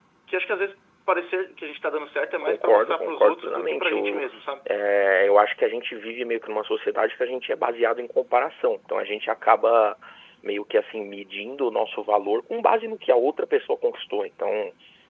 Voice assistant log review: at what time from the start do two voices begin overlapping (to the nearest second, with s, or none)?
2 s